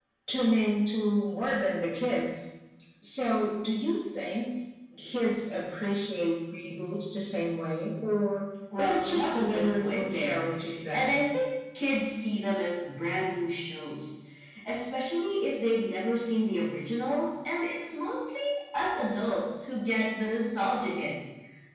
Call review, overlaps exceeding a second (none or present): present